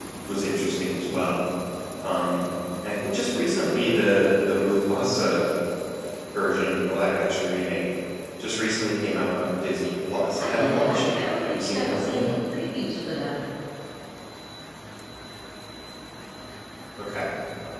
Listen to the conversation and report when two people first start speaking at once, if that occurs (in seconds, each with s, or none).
10.1 s